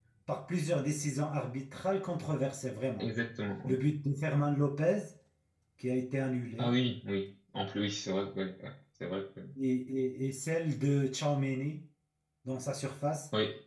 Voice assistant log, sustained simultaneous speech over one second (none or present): none